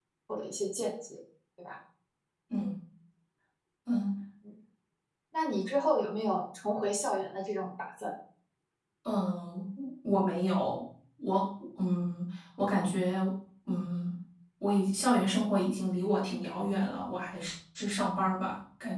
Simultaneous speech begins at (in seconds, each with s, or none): none